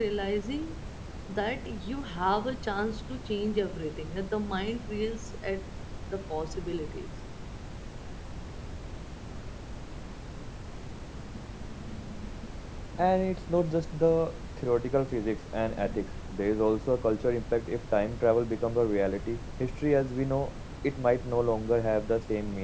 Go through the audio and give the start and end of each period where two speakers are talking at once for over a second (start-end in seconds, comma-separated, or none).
none